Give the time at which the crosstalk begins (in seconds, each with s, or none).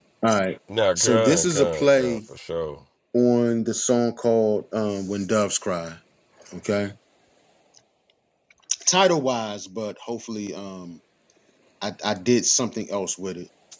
1.0 s